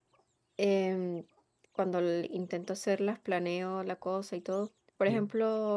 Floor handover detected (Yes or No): No